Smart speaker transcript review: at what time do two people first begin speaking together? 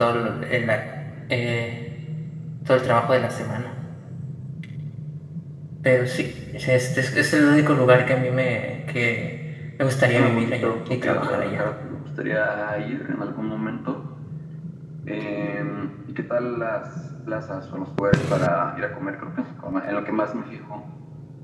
10 s

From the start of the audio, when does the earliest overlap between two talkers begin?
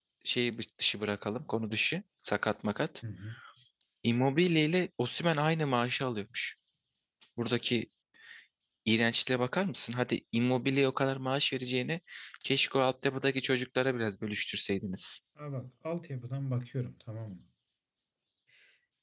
none

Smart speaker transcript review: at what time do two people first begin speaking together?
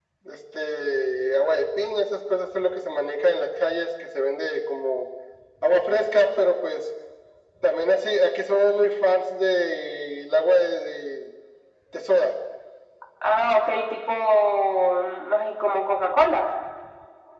none

